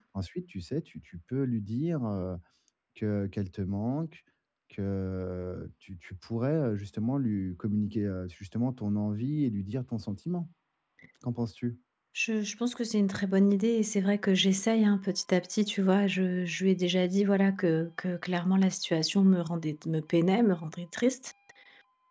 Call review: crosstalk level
none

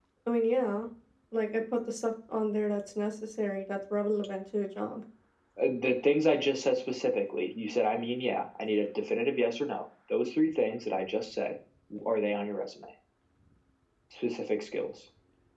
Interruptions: none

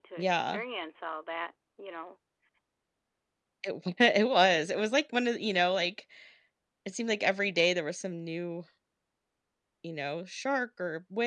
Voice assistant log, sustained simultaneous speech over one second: none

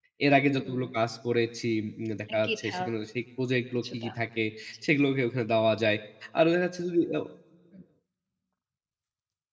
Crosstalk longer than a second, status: none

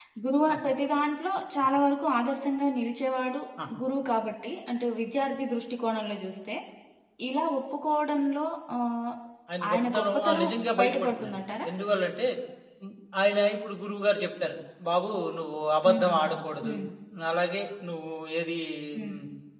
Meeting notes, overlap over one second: present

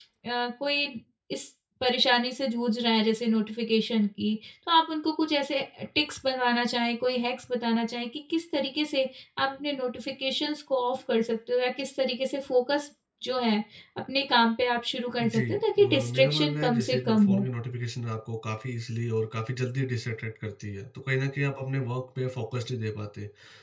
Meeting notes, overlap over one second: present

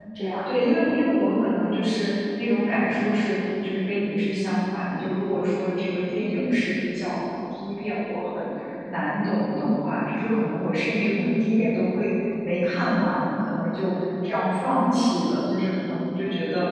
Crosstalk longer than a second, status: none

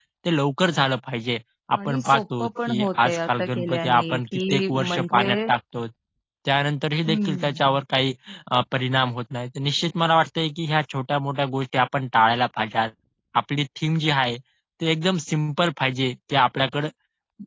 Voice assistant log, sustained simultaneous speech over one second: present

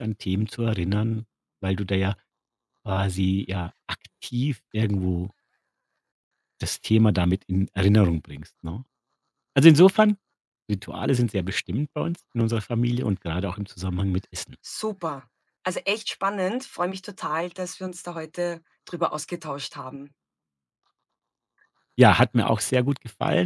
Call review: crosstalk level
none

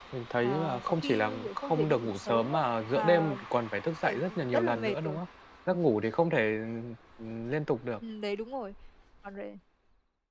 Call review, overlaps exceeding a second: present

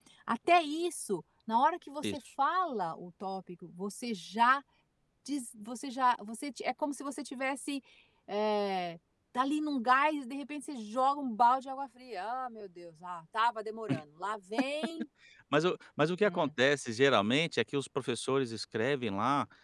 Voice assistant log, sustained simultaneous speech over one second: none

